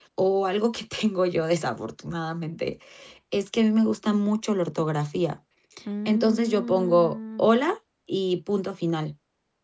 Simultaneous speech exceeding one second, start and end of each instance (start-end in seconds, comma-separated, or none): 6.0-7.5